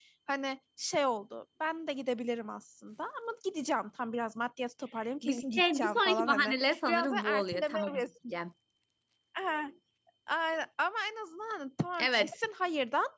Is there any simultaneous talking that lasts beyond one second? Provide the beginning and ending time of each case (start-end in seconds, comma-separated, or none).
5.2-8.0